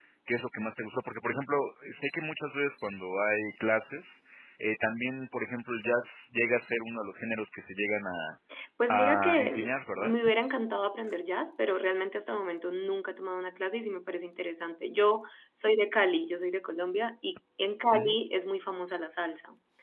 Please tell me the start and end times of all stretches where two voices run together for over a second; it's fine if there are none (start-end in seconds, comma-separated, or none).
8.9-10.1